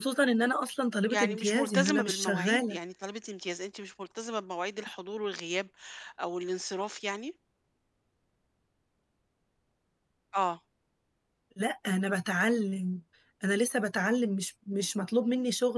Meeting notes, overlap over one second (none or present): present